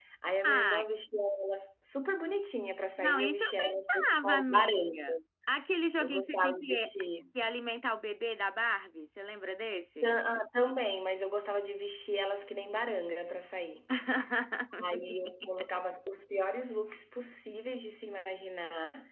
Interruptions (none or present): present